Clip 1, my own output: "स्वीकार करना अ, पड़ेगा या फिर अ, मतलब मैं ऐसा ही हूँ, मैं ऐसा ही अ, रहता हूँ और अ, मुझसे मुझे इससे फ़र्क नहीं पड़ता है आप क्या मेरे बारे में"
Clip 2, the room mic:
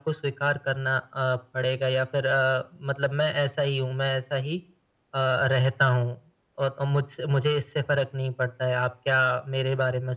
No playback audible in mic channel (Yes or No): No